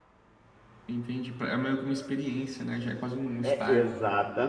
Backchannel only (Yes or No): No